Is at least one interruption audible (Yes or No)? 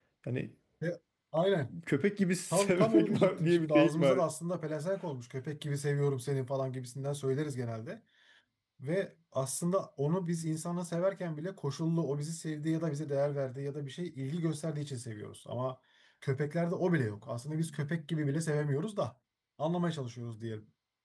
Yes